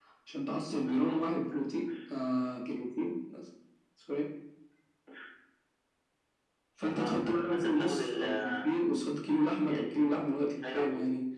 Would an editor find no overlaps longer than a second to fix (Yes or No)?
No